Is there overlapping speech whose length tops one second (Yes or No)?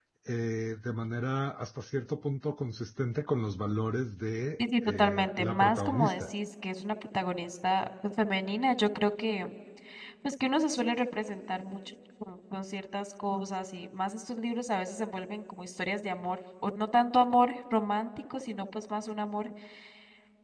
Yes